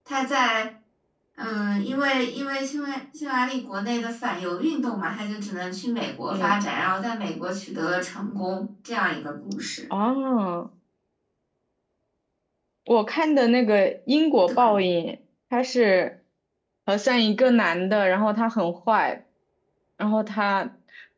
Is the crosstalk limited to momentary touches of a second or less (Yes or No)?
Yes